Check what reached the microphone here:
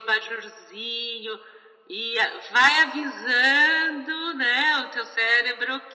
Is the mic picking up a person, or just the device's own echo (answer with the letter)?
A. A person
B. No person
B